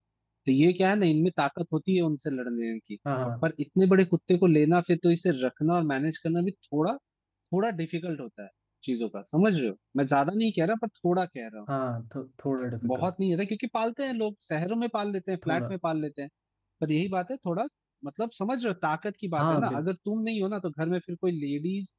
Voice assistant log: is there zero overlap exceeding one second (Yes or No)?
Yes